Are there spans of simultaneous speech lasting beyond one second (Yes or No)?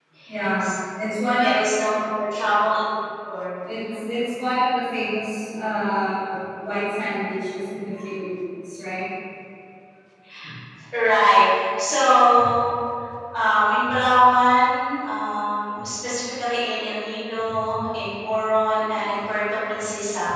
No